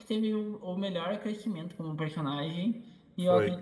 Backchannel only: Yes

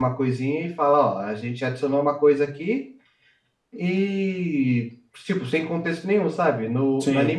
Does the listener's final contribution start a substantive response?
No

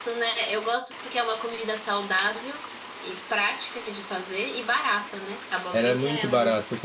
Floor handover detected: Yes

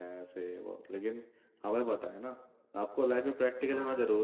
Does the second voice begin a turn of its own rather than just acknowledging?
No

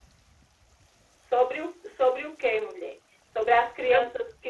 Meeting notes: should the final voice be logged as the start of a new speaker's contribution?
No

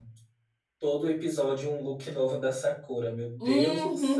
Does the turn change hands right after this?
Yes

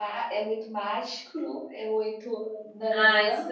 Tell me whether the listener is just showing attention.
No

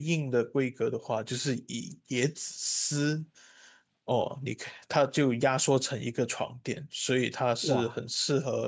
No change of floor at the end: Yes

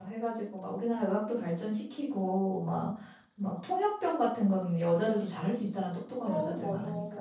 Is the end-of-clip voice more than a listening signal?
No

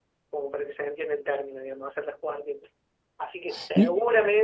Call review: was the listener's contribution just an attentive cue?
Yes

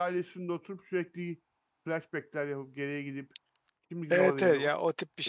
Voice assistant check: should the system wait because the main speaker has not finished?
No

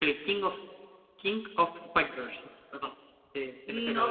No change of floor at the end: No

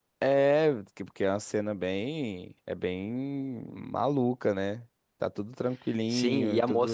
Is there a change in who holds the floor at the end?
Yes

